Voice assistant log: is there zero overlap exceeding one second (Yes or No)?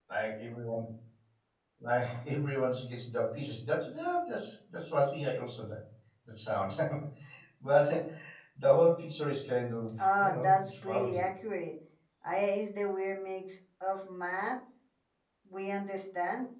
No